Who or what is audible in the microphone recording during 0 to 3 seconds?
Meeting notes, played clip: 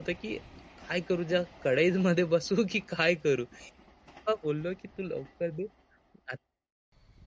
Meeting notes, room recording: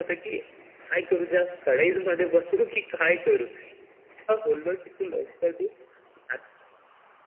echo only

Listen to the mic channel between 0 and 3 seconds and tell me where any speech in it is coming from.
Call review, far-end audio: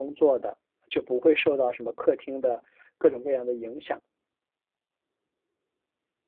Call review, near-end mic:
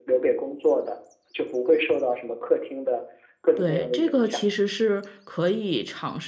echo only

